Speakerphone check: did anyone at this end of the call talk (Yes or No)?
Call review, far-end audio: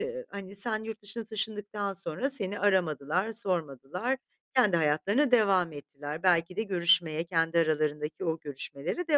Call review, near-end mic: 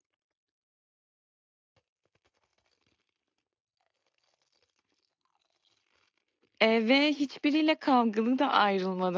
Yes